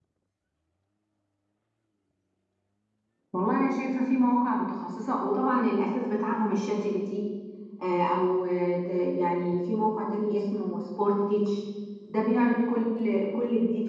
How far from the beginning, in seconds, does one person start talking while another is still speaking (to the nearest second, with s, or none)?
none